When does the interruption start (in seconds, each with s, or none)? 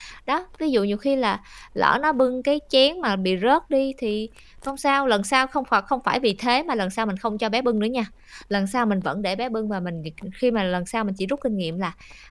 none